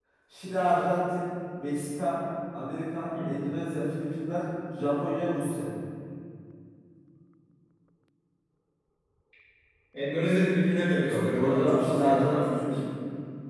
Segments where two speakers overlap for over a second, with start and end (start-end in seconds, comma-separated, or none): 11.0-12.8